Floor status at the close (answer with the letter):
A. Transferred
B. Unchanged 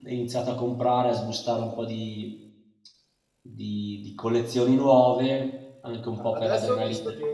A